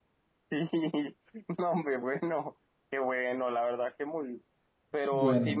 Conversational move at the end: listening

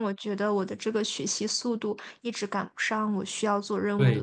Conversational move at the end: taking over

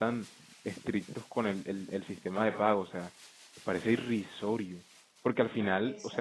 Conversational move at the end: listening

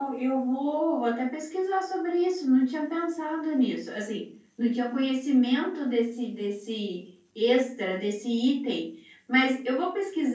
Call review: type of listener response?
listening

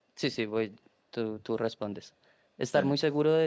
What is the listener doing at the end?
listening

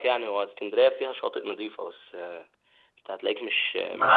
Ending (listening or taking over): taking over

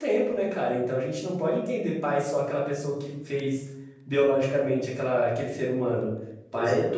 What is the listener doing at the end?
listening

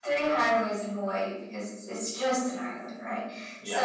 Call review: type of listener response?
listening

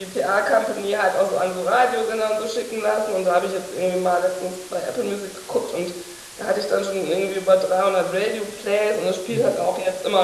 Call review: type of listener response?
listening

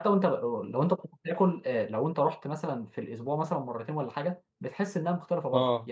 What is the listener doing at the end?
listening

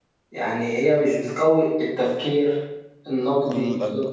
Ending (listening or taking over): taking over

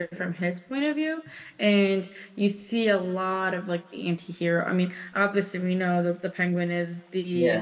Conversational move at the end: listening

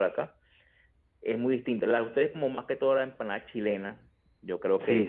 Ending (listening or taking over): taking over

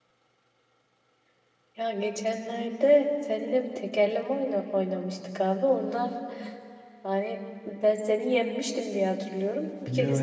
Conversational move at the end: taking over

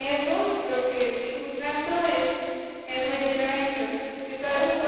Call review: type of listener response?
taking over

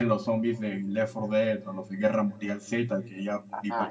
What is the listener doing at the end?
listening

